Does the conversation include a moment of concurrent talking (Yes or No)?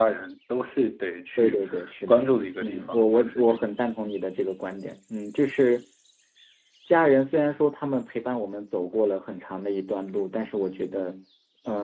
Yes